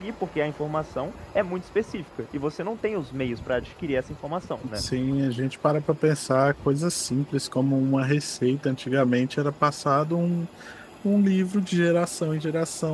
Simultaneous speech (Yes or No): No